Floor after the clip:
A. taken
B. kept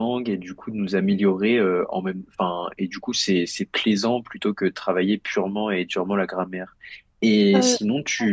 B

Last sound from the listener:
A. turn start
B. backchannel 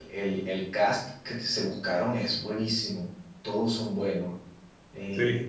B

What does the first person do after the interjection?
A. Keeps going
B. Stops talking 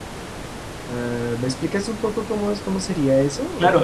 B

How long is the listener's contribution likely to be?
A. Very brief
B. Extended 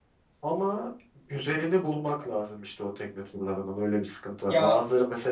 A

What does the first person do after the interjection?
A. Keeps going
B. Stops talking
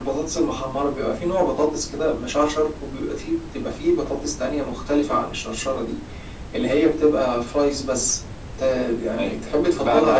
B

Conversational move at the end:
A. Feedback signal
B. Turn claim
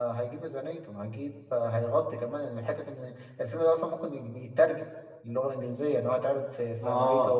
B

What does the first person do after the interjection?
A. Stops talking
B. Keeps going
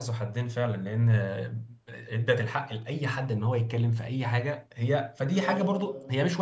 B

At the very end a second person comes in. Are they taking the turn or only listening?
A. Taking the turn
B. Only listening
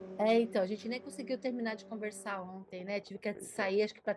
B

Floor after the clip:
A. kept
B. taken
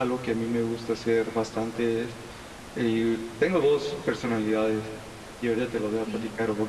A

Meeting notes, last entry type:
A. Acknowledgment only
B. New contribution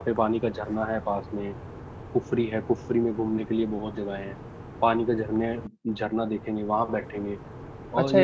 B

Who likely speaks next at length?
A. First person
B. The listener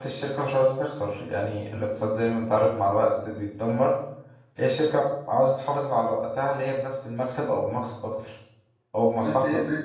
B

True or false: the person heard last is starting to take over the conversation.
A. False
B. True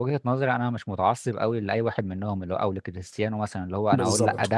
A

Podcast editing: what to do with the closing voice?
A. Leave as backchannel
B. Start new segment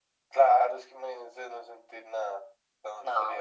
A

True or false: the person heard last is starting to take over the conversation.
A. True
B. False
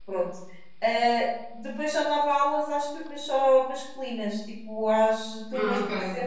B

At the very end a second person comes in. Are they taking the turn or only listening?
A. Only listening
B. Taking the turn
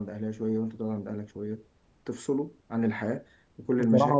B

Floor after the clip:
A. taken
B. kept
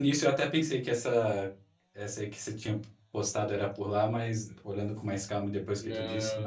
A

